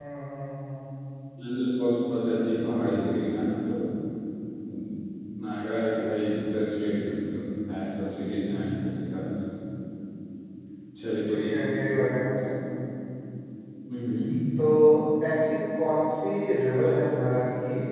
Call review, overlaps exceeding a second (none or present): none